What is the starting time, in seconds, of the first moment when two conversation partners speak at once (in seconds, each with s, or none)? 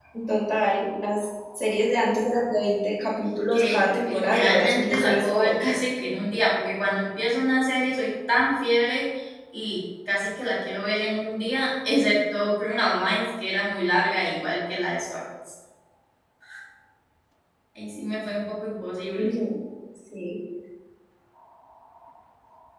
3.5 s